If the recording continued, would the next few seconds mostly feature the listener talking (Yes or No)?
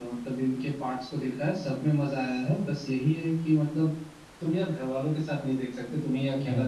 No